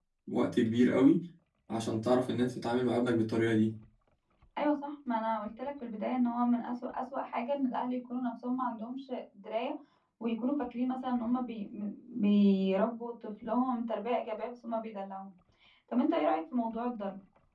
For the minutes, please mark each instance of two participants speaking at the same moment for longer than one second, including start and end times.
none

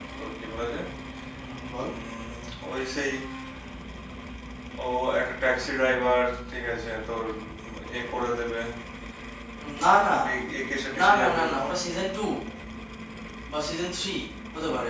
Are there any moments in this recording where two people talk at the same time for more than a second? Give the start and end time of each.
none

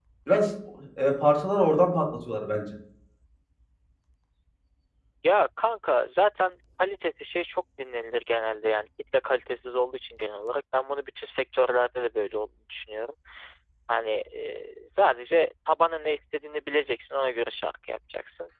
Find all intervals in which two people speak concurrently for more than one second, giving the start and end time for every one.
none

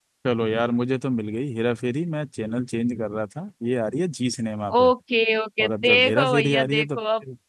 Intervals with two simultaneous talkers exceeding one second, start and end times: 5.6-7.0

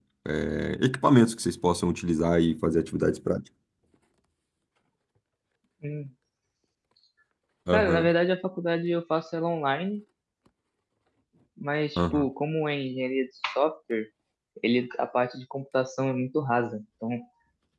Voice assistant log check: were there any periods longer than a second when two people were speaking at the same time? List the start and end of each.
none

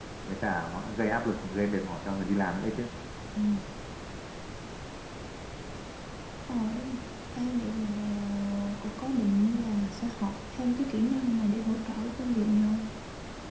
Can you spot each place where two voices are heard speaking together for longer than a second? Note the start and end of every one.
none

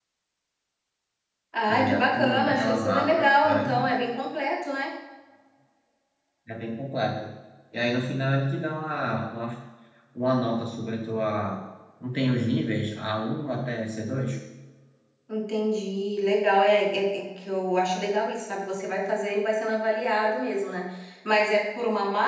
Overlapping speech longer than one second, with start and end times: 1.7-3.9

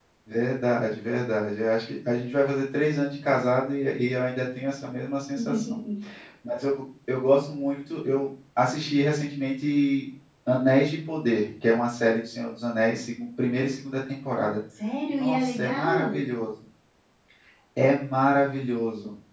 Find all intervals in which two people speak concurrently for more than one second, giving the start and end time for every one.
15.1-16.3

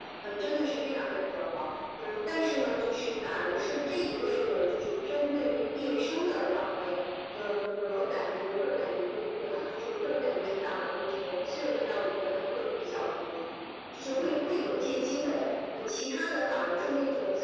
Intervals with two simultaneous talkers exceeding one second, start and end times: none

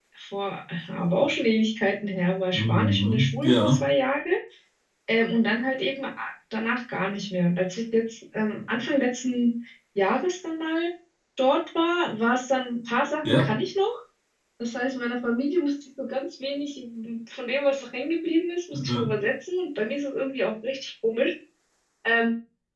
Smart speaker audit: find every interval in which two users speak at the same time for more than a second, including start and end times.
2.5-3.8

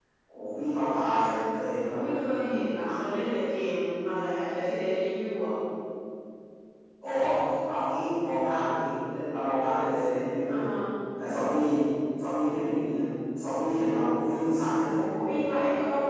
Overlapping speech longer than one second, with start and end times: none

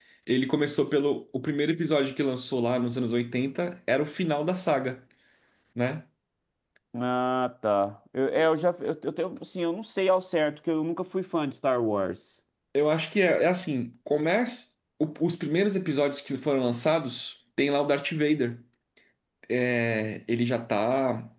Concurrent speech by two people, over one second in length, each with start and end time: none

